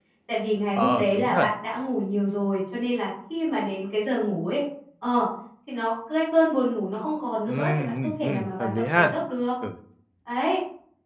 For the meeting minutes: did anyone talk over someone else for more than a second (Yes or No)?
Yes